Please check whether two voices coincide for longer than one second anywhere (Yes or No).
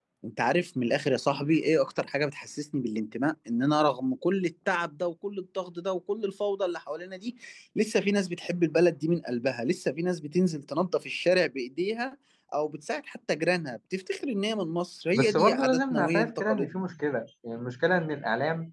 Yes